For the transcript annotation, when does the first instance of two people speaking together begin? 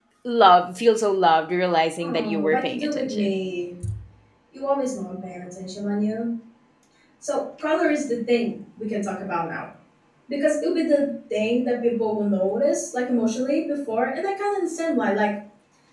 2.0 s

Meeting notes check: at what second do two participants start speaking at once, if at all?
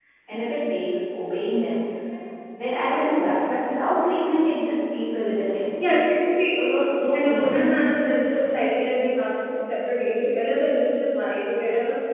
6.5 s

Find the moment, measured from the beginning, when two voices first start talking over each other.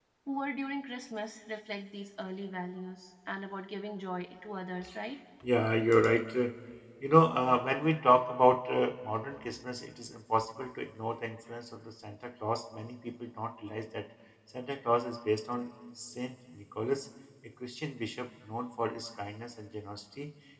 none

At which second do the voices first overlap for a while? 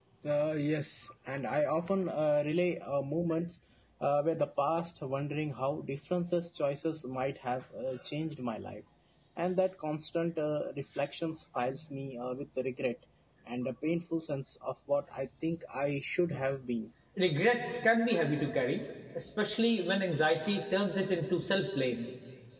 none

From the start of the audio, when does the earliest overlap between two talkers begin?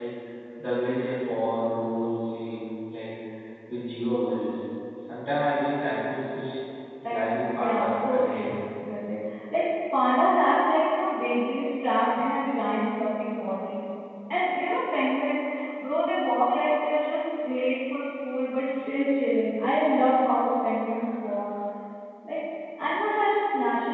7.1 s

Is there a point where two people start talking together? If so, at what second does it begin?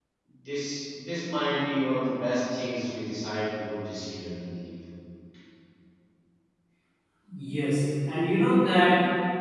none

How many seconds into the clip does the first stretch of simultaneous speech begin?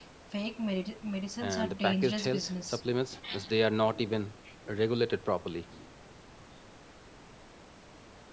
1.4 s

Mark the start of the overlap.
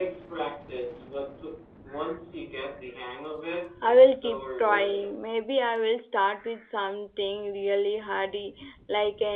3.8 s

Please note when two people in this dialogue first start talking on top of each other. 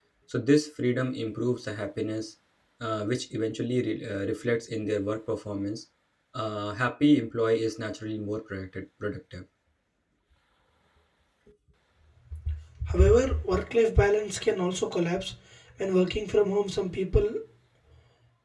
none

